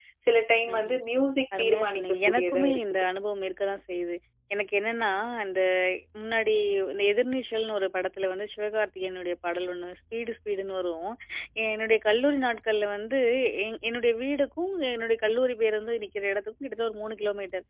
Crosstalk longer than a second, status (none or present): present